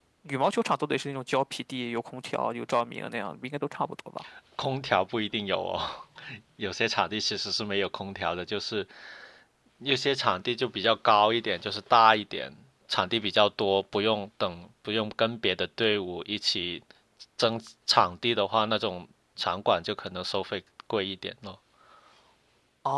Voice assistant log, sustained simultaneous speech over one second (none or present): none